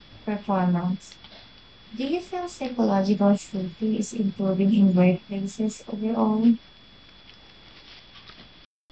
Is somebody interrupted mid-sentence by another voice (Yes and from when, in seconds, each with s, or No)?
No